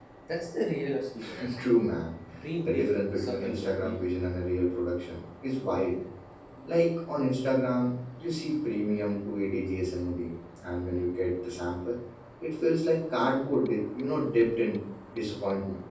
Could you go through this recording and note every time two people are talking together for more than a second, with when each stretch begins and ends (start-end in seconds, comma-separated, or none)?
2.6-4.0